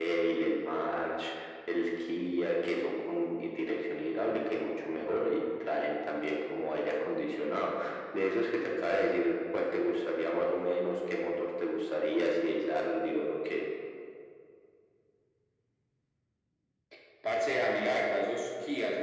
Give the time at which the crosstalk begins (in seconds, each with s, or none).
none